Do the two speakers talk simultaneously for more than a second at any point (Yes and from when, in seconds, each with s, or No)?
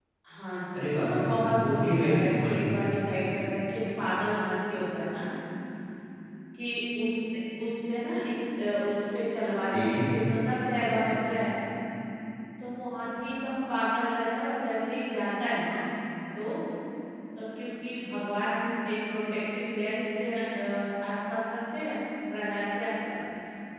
Yes, from 0.8 s